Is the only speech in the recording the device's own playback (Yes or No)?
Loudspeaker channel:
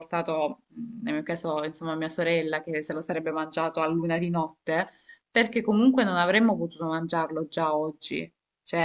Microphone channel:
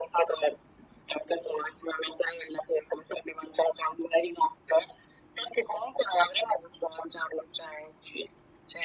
Yes